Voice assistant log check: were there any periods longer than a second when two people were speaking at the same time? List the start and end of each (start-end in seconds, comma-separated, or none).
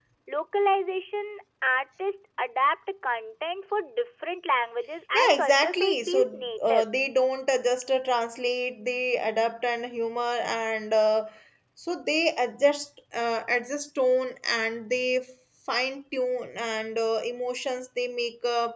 5.1-6.8